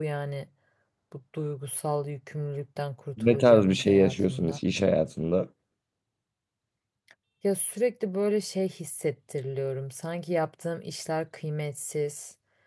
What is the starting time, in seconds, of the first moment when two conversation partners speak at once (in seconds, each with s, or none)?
3.2 s